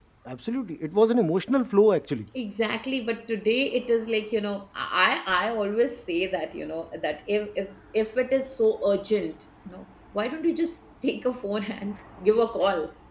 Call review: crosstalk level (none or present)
none